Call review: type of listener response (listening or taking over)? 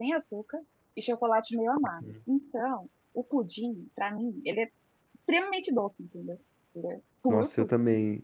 taking over